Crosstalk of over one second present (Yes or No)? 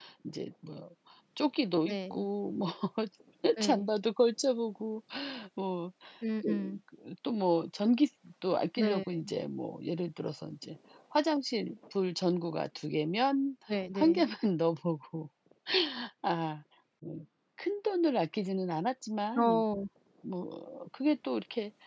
No